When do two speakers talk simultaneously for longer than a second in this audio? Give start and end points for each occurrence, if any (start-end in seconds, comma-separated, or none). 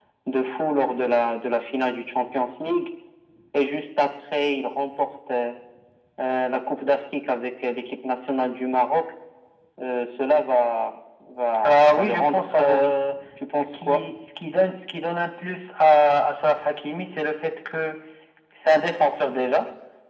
11.6-12.9